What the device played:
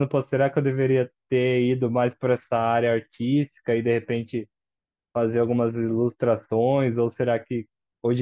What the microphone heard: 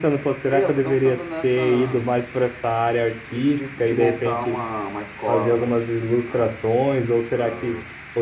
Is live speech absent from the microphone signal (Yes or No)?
No